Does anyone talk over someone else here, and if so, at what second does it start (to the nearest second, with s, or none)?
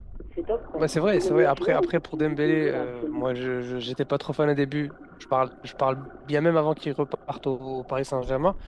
1 s